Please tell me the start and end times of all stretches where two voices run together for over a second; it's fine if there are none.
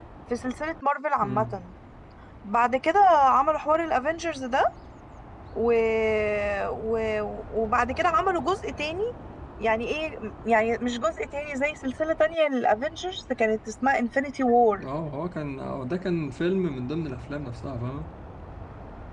none

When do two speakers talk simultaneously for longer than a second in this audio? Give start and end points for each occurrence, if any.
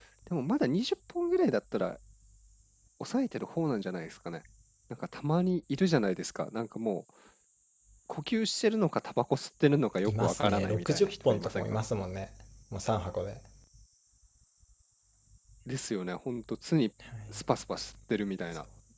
10.1-11.8

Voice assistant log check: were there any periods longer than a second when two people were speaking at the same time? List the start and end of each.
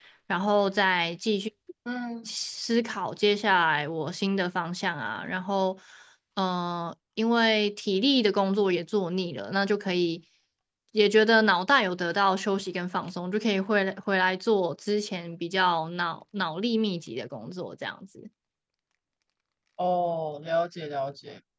none

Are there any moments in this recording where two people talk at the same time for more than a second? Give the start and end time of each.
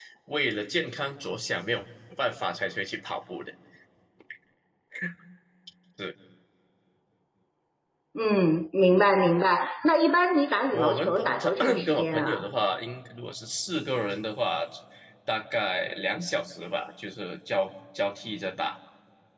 10.7-12.4

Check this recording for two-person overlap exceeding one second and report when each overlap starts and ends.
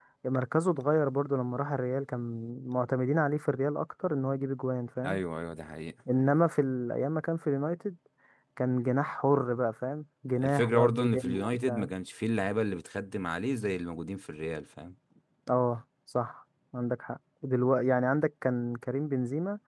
10.4-11.9

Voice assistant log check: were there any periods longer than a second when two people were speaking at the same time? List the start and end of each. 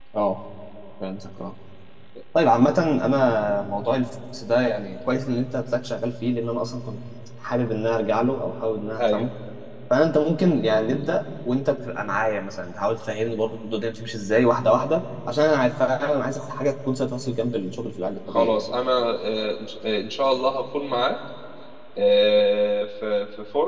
none

